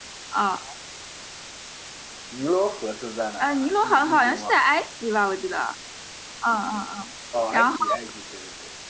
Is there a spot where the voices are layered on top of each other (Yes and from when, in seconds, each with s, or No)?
Yes, from 3.4 s